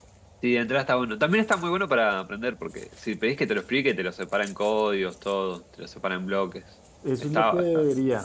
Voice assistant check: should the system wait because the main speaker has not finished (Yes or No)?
No